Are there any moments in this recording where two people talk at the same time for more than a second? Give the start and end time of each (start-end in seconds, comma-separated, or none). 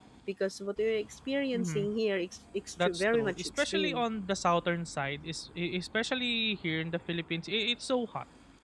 2.8-4.0